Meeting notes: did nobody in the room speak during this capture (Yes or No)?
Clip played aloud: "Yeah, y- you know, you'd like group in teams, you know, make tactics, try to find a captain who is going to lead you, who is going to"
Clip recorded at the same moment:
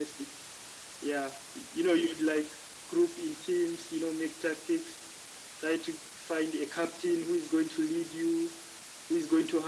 Yes